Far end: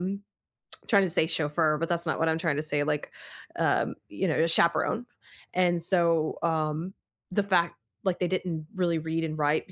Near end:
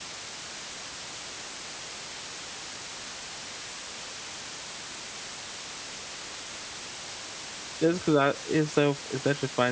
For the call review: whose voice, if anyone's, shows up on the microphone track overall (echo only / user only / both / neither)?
user only